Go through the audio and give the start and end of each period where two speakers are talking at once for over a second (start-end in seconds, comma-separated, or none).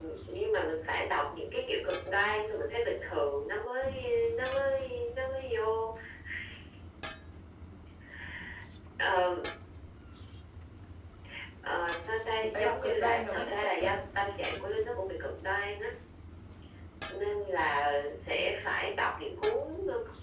12.5-14.0